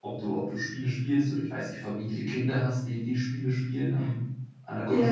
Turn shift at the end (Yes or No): Yes